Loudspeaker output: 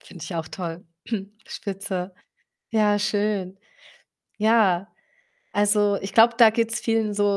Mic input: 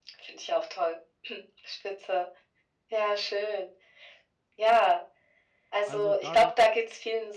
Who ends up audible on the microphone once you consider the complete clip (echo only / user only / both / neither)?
both